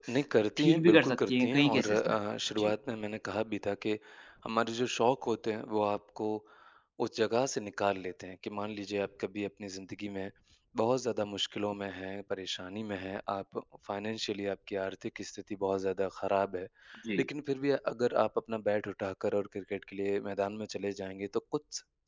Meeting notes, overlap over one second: present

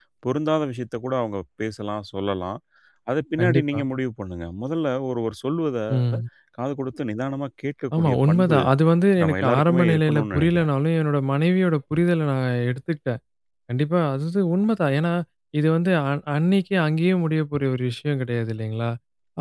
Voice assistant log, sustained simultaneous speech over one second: present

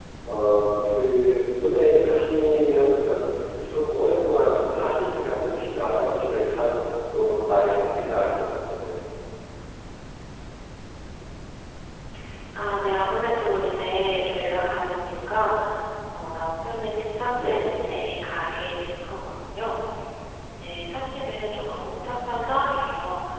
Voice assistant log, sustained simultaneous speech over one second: none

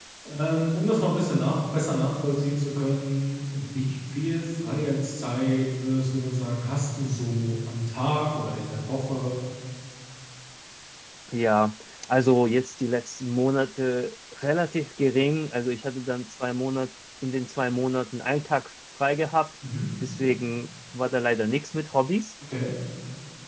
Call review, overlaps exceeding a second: none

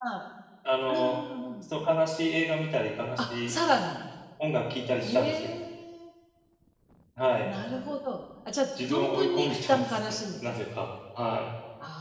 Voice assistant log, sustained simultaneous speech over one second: present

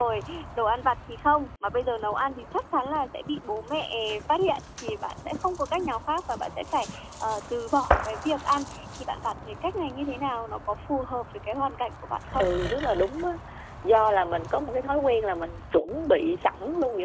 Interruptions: none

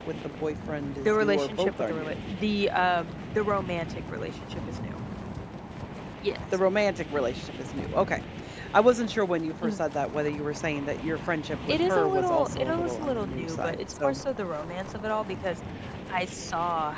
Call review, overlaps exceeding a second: present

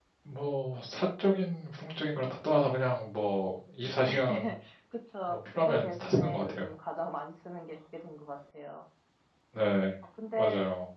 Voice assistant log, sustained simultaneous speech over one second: present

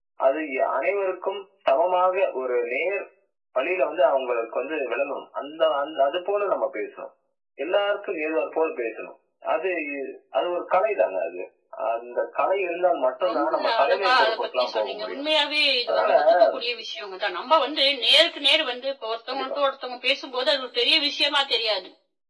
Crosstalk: present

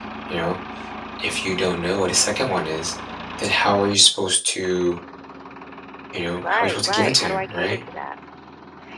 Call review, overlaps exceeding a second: present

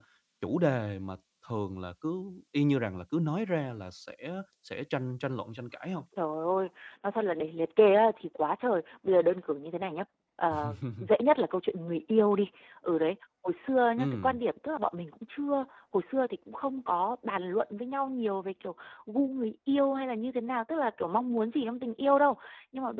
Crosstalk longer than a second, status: none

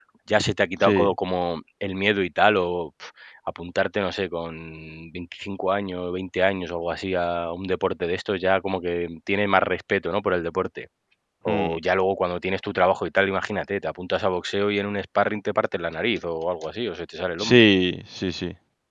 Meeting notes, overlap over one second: none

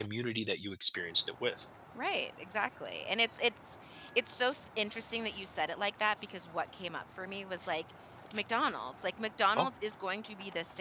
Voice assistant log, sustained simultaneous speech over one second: none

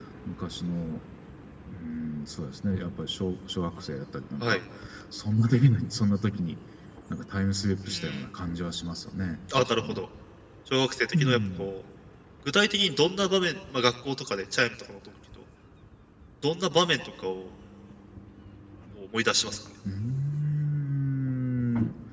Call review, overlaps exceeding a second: none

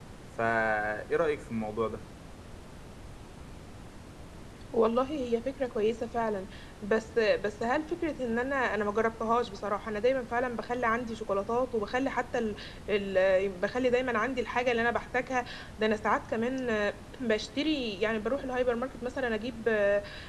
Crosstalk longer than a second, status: none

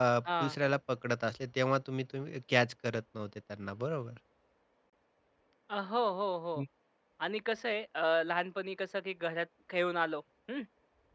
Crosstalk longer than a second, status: none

